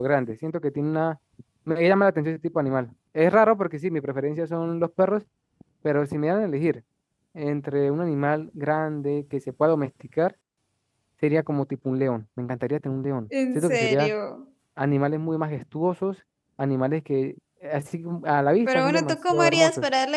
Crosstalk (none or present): present